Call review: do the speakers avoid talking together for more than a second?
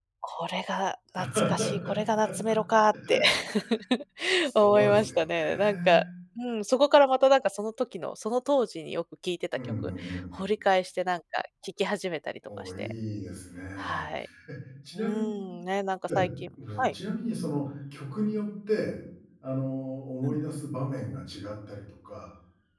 No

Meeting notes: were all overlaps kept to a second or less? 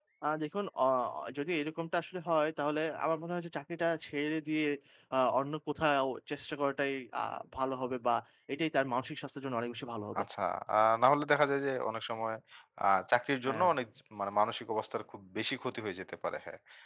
Yes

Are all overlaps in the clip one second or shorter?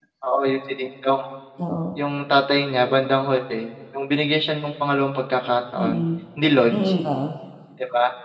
Yes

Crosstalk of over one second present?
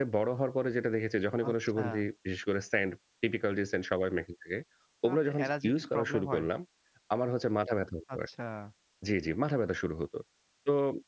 Yes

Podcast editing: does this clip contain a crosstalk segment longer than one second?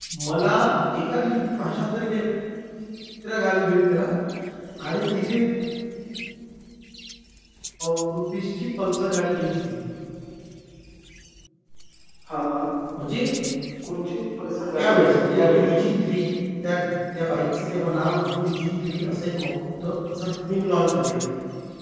No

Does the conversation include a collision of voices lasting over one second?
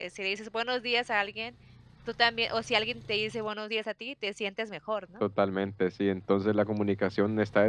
No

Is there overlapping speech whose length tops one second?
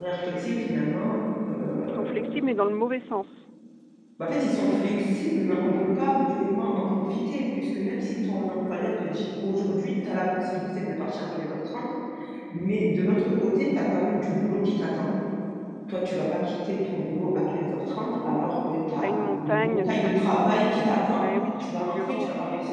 Yes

